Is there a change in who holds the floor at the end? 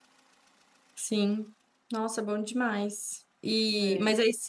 No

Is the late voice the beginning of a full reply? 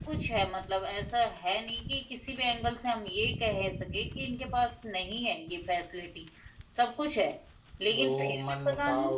Yes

